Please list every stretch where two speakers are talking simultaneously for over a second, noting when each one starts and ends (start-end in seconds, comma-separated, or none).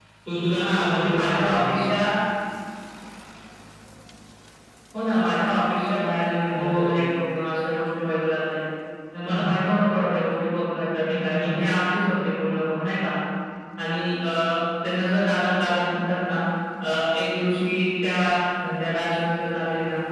0.5-1.7